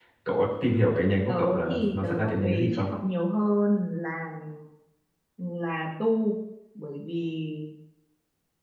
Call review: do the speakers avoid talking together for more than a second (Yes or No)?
No